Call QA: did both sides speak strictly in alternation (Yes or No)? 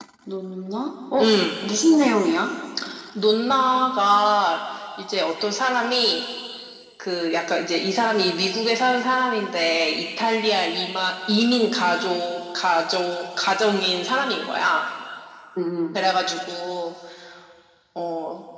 Yes